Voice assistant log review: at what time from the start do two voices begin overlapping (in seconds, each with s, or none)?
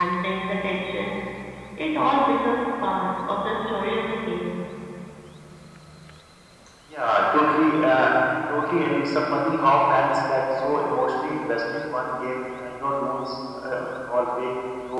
none